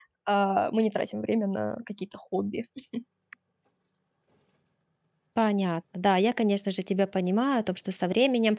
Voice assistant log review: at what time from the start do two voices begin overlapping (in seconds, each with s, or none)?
none